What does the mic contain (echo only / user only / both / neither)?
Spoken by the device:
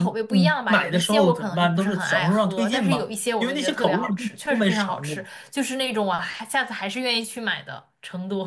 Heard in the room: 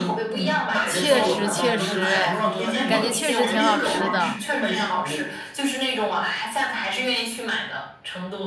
both